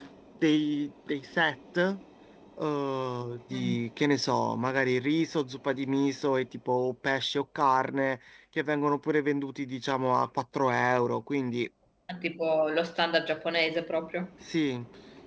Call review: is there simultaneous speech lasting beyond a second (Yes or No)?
No